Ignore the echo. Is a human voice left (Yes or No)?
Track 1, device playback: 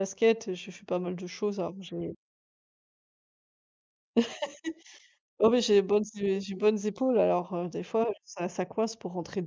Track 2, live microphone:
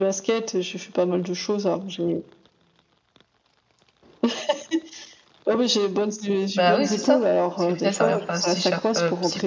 Yes